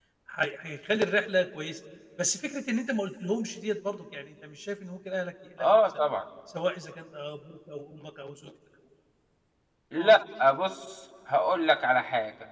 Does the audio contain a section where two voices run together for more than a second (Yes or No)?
No